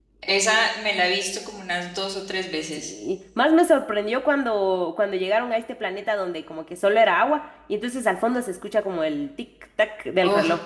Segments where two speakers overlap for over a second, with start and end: none

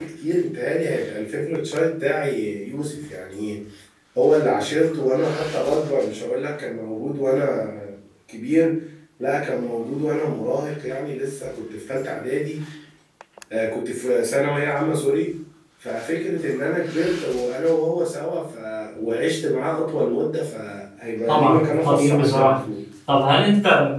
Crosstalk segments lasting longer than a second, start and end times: 21.3-22.6

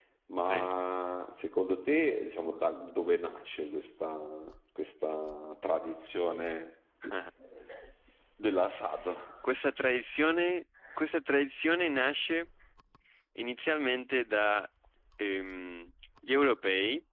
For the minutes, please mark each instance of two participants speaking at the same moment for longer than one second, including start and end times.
none

